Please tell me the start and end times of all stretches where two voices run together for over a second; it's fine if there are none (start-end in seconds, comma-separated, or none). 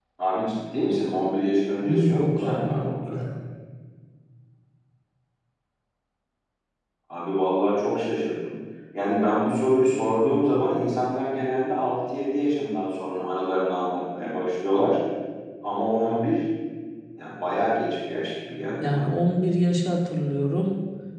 1.8-3.2